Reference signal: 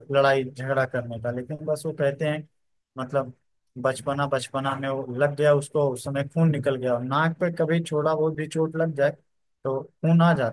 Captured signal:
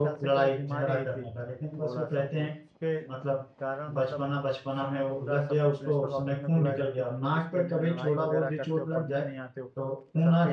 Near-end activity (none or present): present